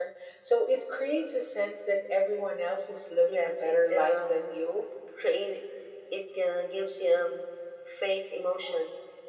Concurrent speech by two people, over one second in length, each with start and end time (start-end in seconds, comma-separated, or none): 3.3-4.6